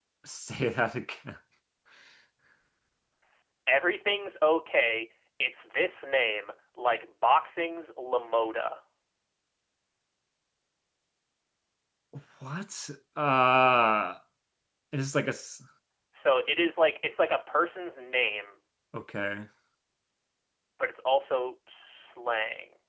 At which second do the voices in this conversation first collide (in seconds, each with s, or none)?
none